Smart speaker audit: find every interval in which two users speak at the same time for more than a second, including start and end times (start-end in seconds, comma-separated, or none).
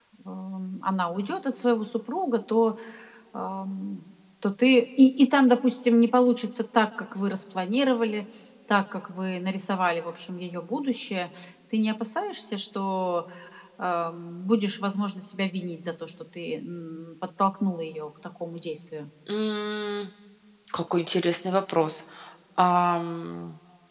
none